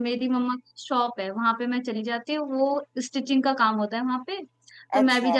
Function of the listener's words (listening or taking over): listening